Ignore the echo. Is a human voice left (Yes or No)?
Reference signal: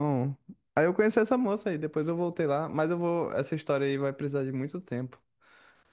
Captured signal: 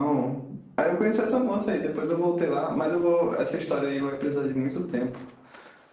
No